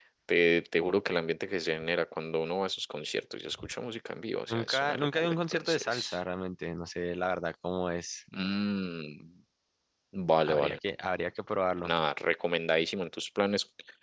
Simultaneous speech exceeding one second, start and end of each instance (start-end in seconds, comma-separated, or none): 4.5-6.2